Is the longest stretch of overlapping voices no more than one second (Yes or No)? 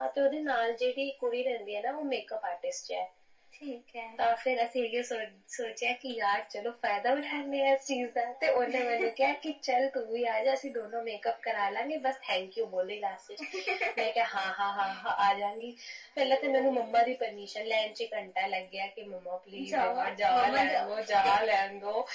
No